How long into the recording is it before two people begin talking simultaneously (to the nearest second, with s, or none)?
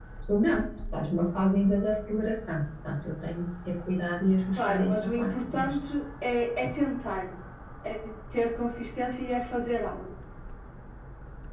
5 s